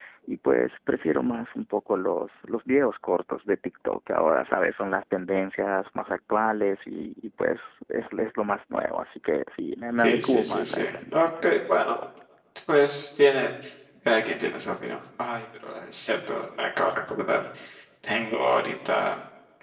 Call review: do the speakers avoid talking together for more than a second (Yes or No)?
No